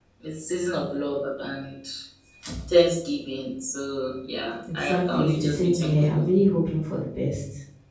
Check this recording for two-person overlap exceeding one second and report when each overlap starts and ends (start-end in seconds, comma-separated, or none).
4.7-6.2